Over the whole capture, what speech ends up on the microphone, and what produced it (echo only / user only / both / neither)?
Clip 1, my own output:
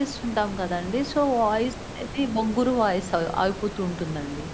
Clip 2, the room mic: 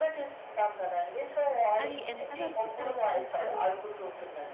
both